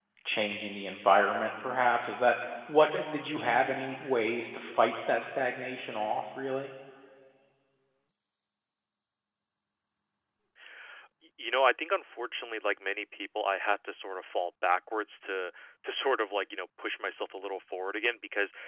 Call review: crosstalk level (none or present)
none